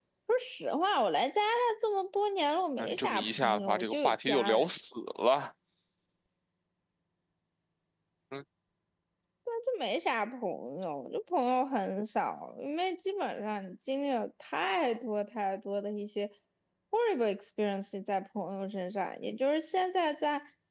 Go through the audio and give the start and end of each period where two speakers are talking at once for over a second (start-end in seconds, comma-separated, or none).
2.8-4.7